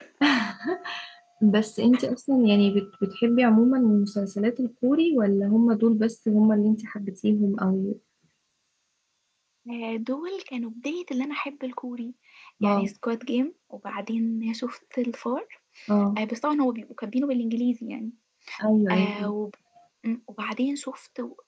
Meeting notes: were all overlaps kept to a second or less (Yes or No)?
Yes